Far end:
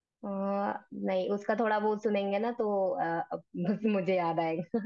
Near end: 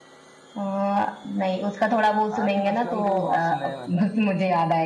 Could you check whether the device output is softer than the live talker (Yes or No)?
No